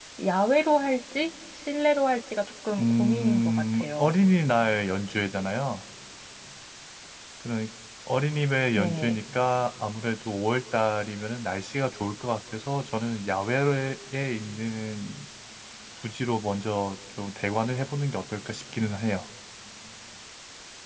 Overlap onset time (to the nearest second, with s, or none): 3 s